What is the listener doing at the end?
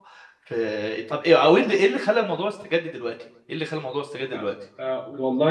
taking over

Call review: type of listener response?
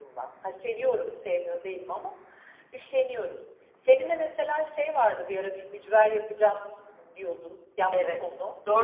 taking over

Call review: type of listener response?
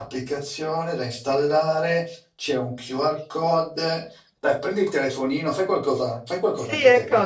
taking over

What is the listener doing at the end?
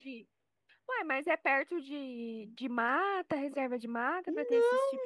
taking over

